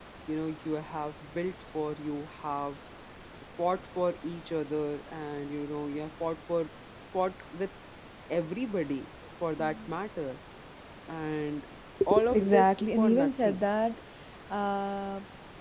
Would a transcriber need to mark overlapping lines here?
Yes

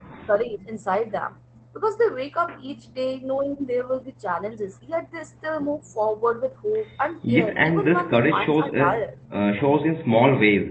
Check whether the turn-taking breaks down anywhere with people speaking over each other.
Yes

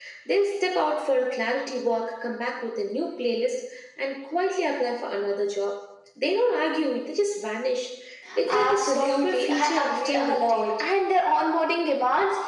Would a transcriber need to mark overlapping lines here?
Yes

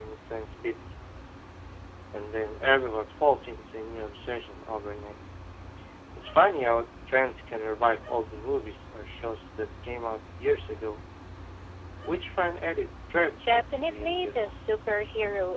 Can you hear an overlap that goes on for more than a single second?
Yes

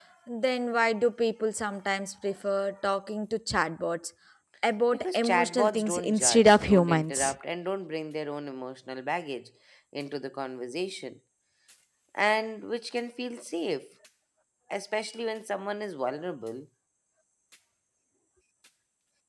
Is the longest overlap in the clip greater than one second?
Yes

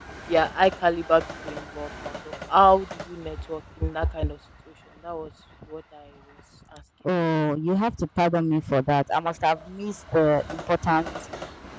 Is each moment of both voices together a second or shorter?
Yes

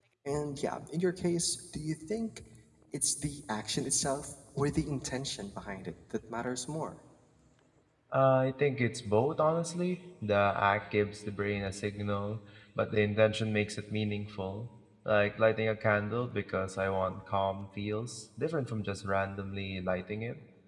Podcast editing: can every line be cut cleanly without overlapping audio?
Yes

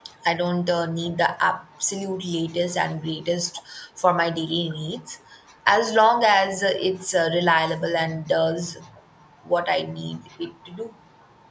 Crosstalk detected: No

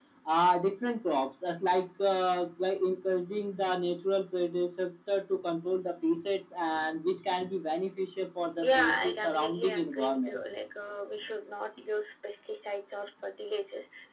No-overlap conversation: No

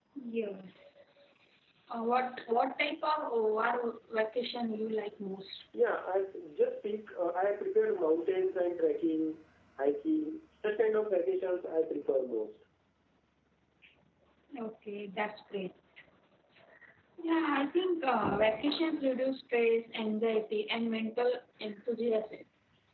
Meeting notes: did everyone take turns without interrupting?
Yes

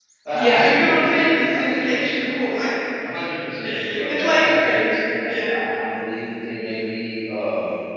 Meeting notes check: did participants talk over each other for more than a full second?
Yes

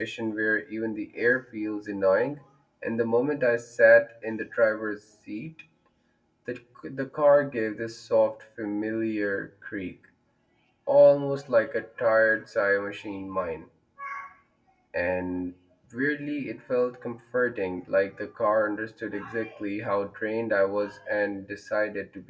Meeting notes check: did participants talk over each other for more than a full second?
No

